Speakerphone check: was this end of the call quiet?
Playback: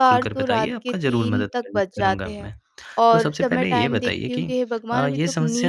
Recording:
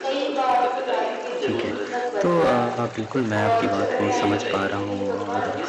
No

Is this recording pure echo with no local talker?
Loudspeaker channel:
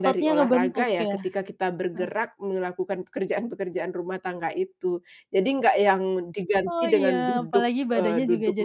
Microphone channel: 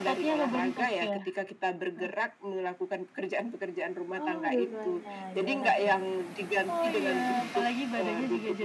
No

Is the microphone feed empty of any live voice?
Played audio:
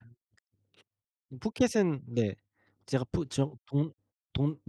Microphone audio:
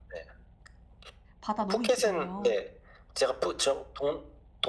No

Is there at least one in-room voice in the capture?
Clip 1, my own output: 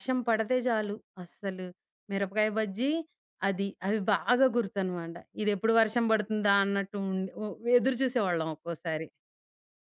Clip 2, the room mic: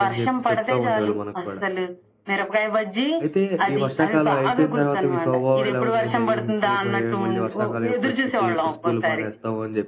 Yes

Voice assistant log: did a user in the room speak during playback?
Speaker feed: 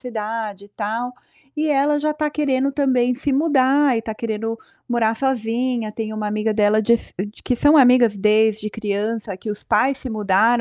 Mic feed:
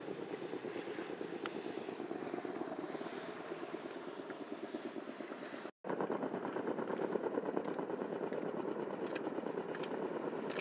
No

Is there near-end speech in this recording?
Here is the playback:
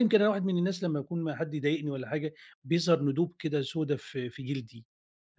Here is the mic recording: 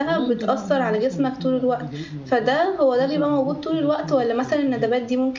Yes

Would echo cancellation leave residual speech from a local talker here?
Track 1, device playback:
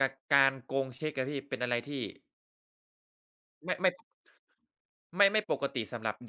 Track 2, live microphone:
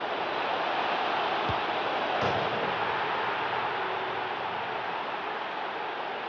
No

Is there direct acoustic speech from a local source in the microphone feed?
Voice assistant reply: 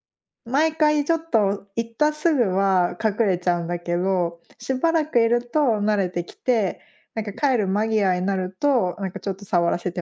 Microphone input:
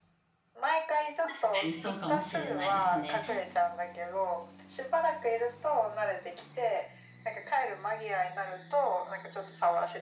Yes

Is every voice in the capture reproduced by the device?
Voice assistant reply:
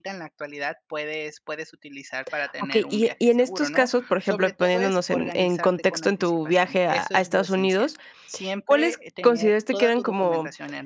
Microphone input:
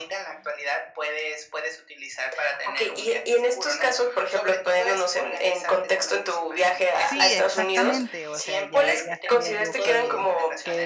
No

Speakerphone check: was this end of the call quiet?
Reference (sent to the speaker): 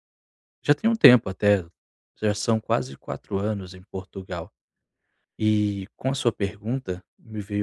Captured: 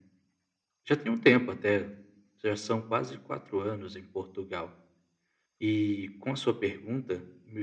Yes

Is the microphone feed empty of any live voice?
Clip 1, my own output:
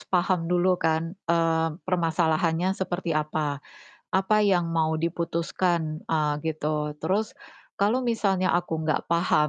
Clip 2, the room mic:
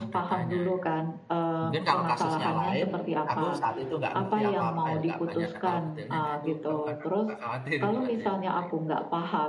No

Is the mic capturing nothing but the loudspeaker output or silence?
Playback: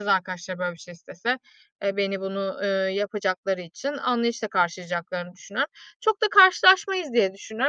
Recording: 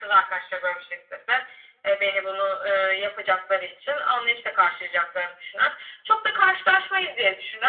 Yes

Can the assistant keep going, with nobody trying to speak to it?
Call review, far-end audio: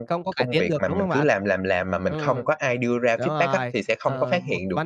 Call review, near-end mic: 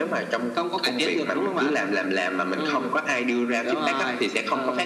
Yes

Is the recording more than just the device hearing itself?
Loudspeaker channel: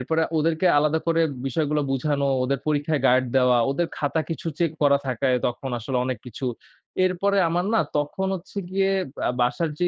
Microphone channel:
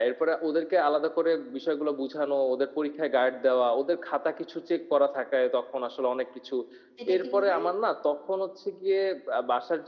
Yes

